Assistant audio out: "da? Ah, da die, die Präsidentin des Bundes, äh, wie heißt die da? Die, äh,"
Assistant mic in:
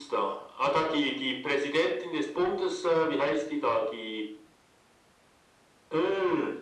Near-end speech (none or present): none